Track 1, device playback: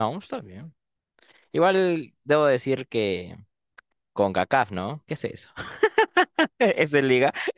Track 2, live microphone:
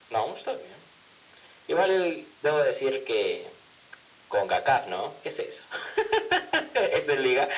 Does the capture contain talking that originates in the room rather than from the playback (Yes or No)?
No